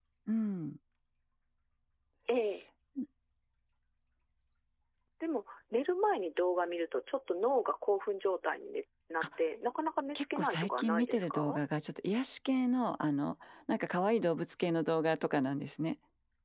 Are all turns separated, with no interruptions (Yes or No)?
No